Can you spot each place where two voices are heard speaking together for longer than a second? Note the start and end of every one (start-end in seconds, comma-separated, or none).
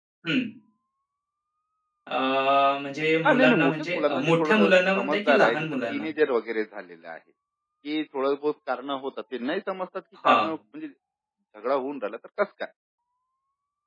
3.2-6.0